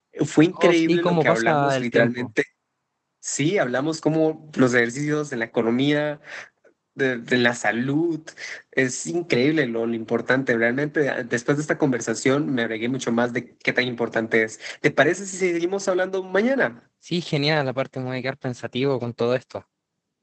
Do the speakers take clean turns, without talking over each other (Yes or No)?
No